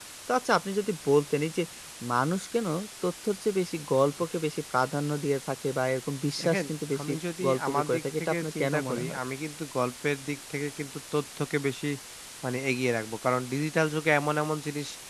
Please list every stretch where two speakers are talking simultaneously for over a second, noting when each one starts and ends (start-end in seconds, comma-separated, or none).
6.4-9.2